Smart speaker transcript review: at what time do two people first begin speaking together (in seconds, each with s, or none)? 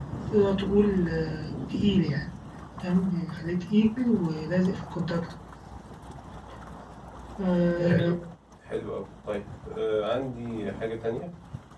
none